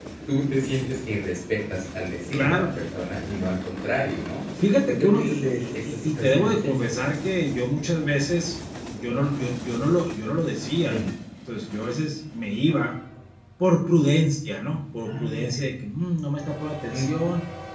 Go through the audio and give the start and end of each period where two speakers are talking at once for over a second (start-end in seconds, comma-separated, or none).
4.9-6.8